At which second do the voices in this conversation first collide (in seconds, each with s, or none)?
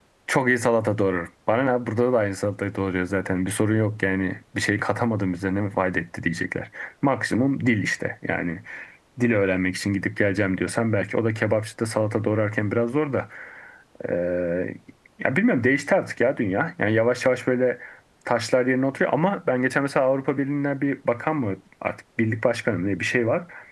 none